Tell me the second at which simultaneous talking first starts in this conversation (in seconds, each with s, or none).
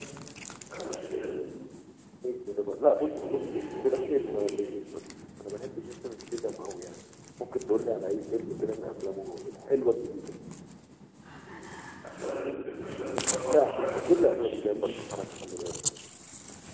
3.0 s